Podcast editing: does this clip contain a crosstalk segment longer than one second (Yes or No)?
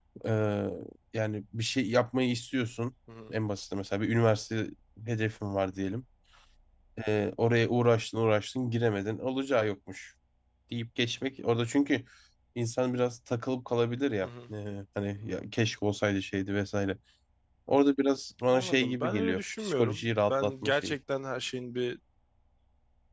Yes